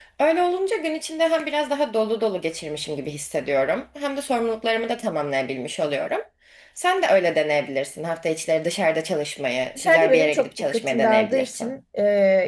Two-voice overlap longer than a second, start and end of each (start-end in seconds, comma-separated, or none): 9.8-11.7